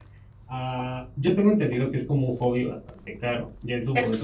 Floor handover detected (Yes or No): No